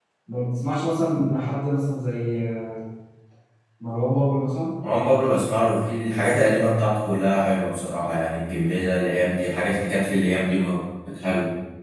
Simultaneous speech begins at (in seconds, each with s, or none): none